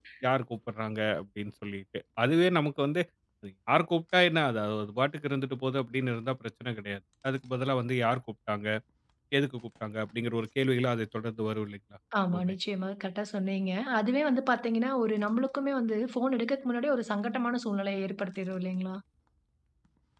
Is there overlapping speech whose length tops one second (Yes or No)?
No